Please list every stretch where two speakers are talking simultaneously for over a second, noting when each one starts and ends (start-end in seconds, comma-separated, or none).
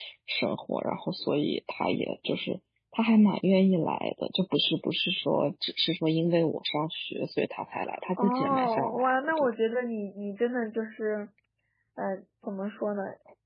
8.2-9.5